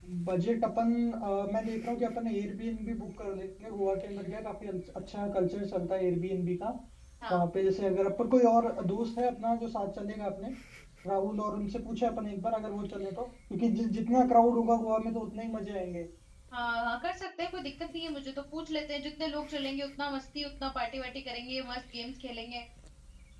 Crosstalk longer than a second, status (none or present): none